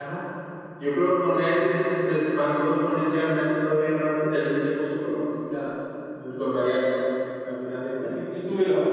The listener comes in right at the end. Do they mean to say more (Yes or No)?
Yes